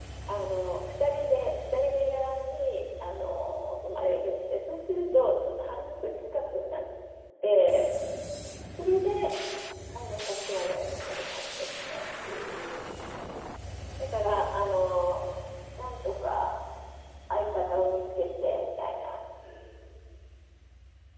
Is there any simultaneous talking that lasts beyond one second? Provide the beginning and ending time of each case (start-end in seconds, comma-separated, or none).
none